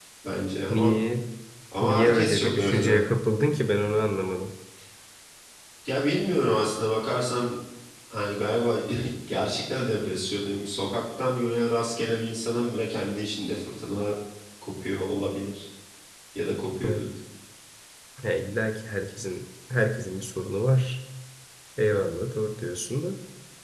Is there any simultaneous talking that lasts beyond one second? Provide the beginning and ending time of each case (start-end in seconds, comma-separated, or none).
1.8-3.0